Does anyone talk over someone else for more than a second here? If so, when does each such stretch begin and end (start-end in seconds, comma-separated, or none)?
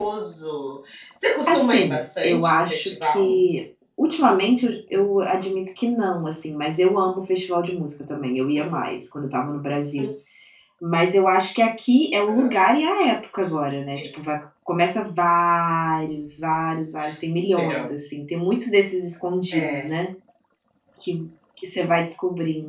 1.5-3.4